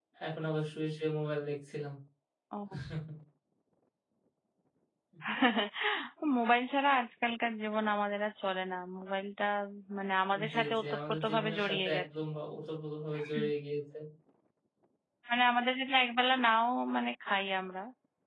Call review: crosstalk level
present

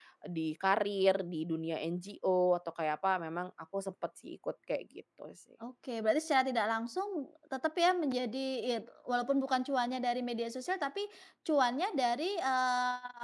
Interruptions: none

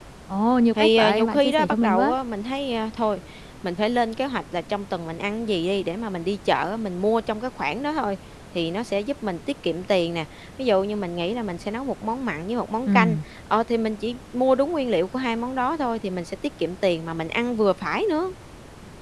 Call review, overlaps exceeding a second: present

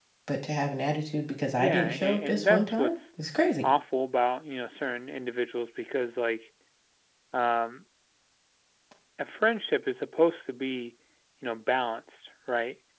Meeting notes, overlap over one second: present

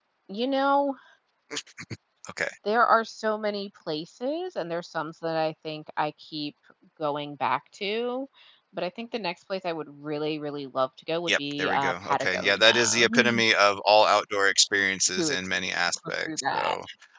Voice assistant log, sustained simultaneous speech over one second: present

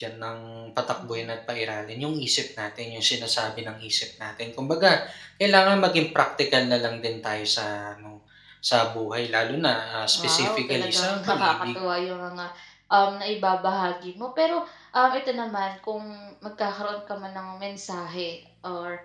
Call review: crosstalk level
present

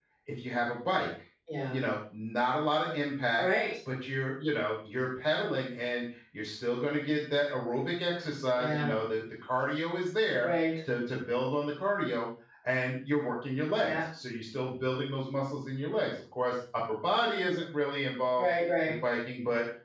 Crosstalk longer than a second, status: none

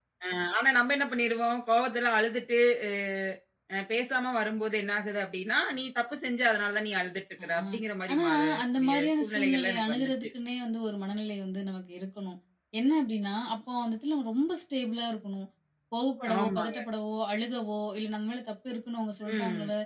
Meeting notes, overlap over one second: present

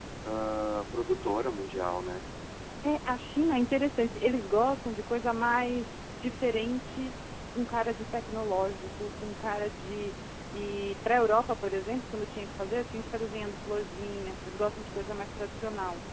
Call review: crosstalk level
none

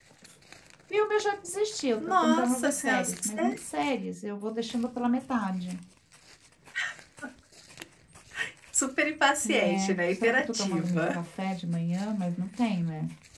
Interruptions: present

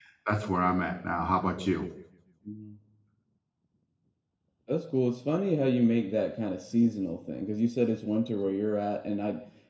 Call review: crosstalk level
none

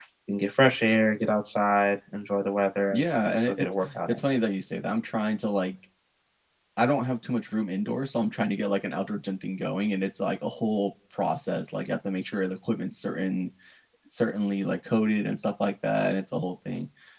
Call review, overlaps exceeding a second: present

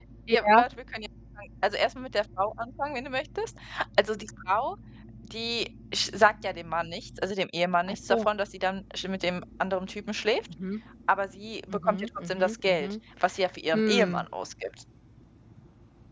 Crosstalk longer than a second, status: present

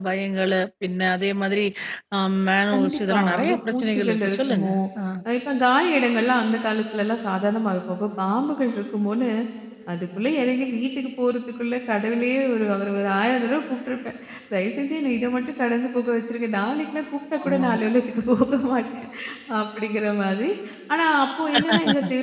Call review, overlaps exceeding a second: present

